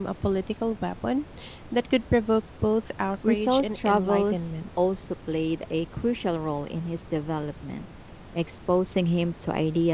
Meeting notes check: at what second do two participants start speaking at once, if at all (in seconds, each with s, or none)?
3.2 s